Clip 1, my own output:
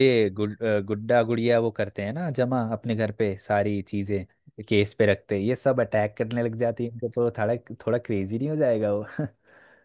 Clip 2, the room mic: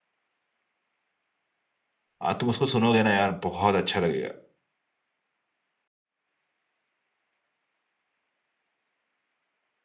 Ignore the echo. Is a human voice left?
Yes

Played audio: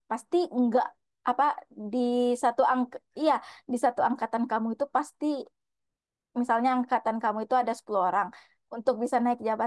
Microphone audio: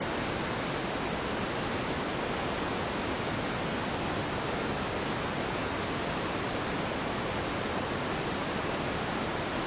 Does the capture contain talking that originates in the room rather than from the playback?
No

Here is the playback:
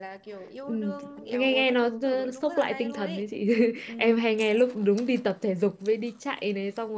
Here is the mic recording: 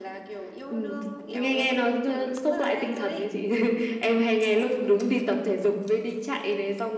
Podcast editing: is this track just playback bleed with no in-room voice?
Yes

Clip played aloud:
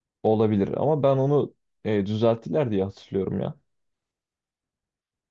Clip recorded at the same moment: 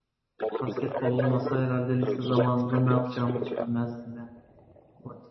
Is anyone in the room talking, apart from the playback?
Yes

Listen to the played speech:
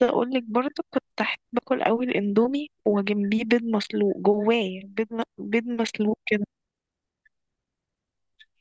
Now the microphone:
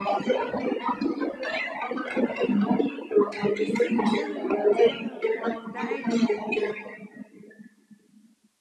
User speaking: Yes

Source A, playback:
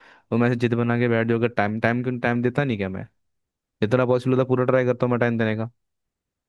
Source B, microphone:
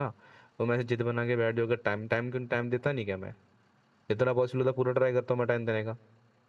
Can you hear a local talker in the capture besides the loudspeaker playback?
No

